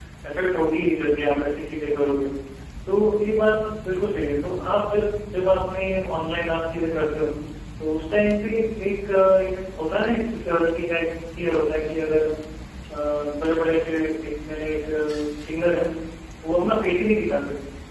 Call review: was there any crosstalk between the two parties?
No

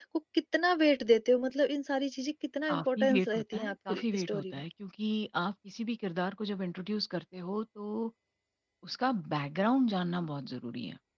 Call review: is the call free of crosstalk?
No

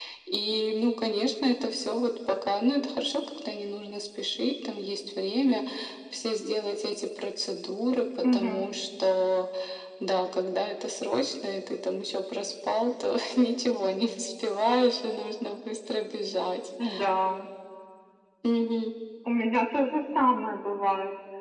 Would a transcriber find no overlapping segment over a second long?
Yes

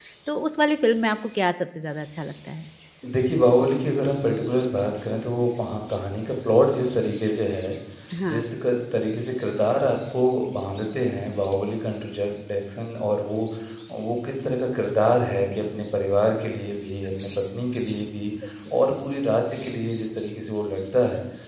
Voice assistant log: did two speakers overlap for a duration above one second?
No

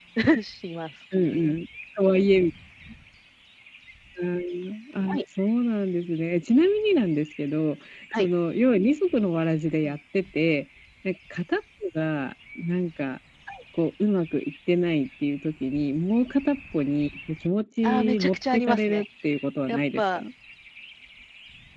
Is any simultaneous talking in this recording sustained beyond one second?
Yes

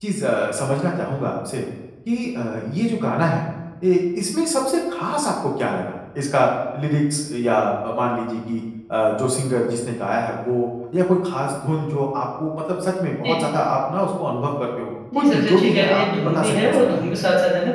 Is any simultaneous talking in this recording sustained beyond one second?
Yes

